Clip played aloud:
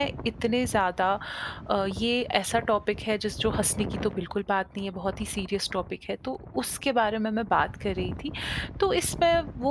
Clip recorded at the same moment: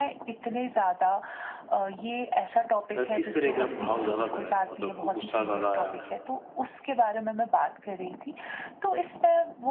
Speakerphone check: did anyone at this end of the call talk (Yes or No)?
Yes